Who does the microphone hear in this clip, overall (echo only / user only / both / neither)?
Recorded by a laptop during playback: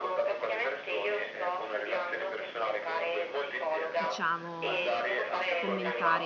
both